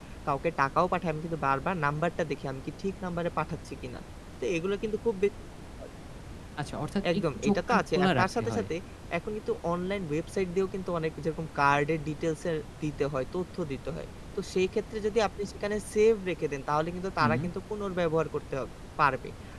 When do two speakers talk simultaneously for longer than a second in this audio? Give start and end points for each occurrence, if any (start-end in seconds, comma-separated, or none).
7.1-8.7